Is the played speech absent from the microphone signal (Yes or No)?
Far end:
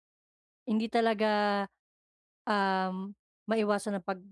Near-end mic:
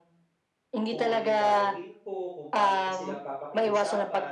No